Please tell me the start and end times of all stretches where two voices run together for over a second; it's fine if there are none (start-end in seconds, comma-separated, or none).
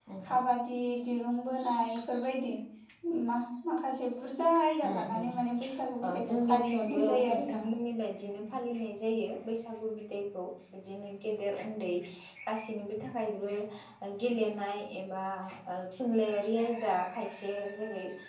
6.3-7.6